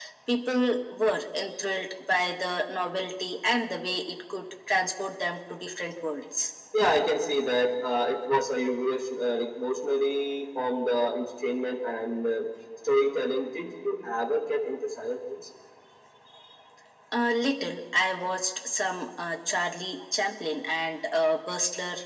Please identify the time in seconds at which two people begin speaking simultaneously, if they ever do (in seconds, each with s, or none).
none